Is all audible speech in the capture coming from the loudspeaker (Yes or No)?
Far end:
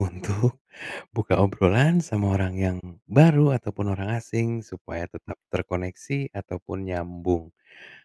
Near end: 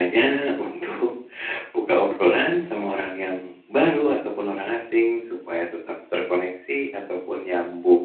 Yes